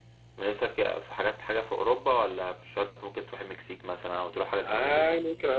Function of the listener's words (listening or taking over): taking over